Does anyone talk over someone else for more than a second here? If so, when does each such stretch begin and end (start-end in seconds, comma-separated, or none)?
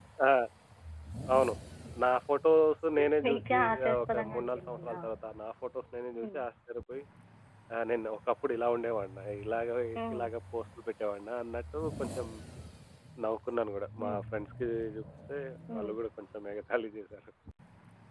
3.2-5.0